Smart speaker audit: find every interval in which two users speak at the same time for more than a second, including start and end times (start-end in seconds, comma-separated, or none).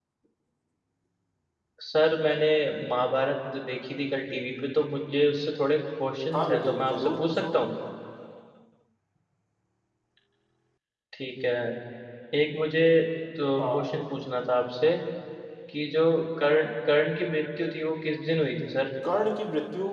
6.3-7.5